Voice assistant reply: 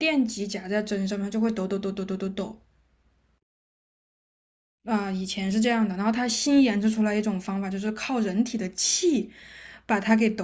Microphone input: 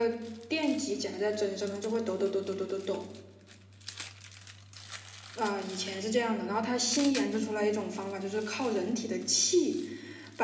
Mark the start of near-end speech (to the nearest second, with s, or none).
none